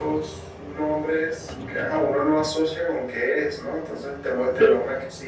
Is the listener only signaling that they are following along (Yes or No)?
Yes